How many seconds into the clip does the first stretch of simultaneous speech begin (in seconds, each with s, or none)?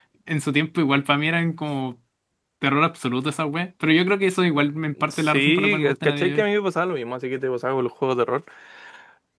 5.1 s